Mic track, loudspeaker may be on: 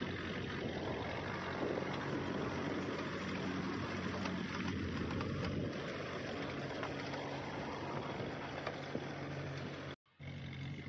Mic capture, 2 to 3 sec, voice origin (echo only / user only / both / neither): neither